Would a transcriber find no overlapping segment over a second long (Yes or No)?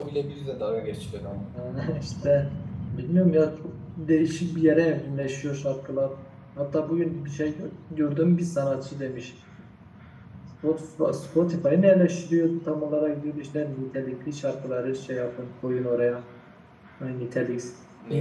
Yes